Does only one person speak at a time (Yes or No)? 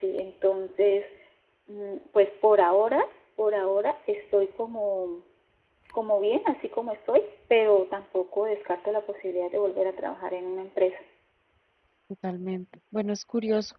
Yes